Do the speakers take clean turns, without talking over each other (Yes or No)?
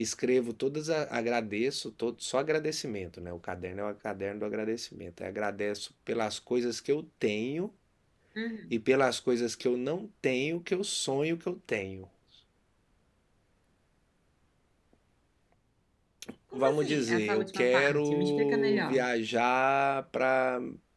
No